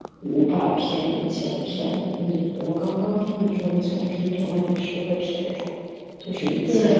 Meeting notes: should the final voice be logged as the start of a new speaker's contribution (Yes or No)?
Yes